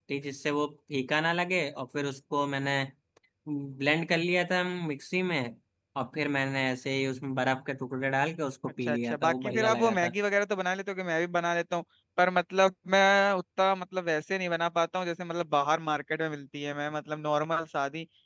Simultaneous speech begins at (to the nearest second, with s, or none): 9 s